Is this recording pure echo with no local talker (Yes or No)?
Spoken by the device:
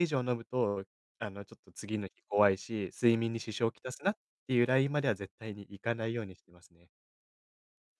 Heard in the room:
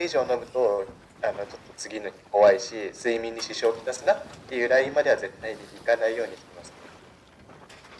Yes